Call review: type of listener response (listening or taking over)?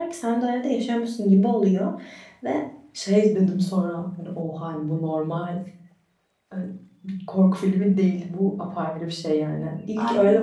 listening